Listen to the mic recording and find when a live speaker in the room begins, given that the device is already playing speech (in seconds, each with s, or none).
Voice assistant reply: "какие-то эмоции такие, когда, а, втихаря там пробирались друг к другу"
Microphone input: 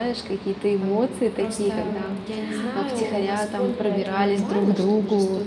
0.8 s